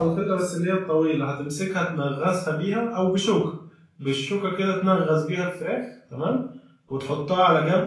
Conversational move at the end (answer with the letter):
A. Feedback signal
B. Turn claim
A